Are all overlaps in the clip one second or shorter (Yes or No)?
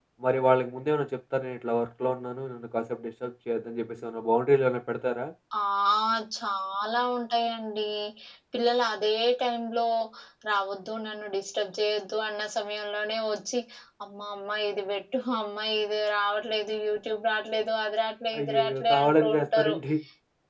No